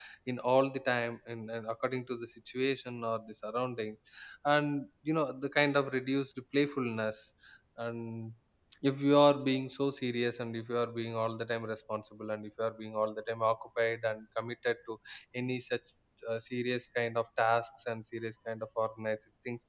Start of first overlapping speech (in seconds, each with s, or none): none